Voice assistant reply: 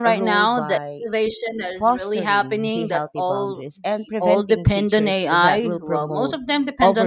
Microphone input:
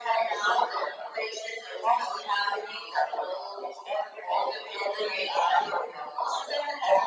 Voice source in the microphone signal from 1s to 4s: echo only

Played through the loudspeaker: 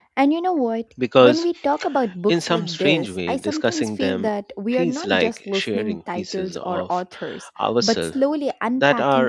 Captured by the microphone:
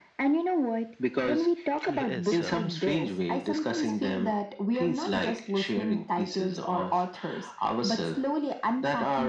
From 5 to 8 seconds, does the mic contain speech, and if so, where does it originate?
echo only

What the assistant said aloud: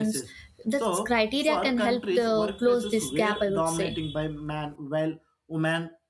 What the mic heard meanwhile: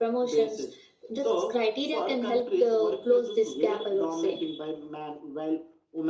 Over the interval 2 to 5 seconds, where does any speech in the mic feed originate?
echo only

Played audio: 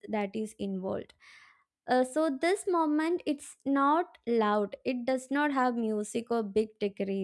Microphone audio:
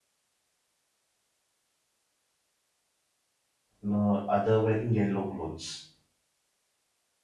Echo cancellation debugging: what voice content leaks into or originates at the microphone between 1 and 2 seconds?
neither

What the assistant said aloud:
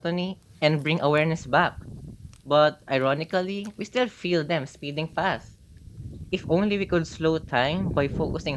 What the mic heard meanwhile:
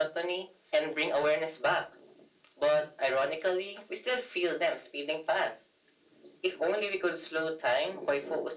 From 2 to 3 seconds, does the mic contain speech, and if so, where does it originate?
echo only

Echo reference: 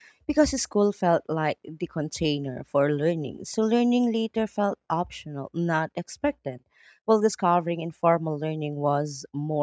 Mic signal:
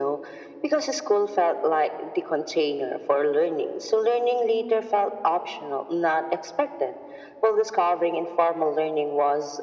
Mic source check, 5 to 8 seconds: echo only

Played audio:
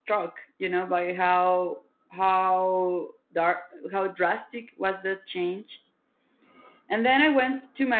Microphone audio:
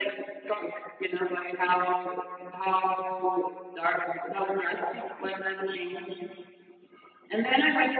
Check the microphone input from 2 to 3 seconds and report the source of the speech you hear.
echo only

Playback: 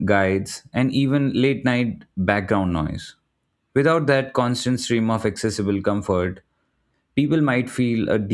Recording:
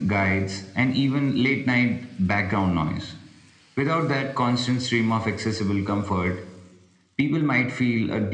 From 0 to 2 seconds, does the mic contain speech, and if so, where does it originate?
echo only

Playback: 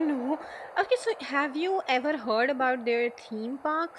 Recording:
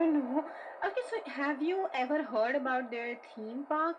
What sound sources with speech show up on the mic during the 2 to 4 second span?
echo only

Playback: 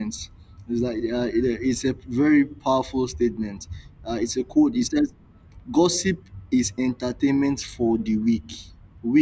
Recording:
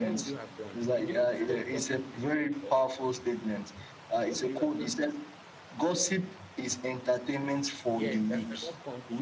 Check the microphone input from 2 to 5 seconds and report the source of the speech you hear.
both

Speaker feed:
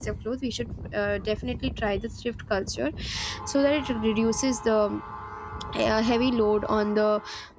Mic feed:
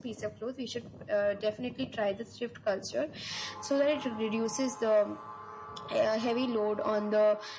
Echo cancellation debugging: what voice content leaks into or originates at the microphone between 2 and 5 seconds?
echo only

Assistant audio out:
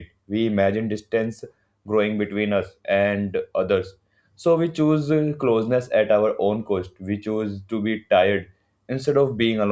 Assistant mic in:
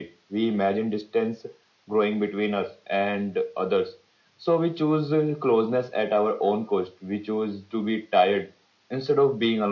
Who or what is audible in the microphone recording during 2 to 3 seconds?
echo only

